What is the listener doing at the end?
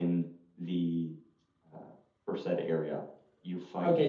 taking over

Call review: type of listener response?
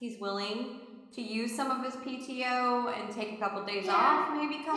taking over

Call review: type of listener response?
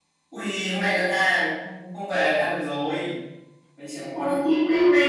taking over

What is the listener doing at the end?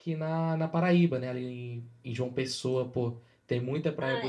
taking over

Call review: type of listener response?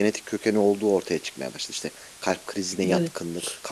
listening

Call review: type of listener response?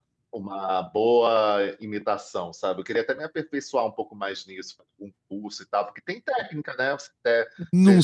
listening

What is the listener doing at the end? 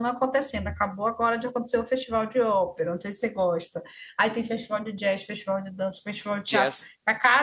listening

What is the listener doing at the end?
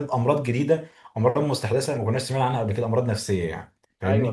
taking over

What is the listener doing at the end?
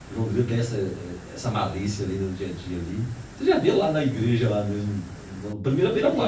taking over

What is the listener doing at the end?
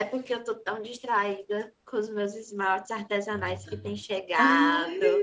taking over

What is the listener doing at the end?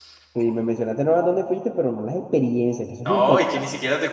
taking over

